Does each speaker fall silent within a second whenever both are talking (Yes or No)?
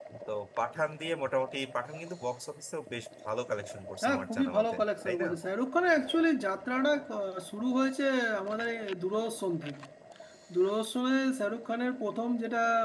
No